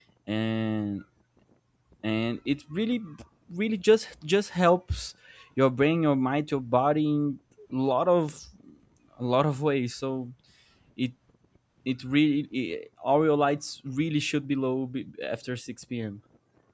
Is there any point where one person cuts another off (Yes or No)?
No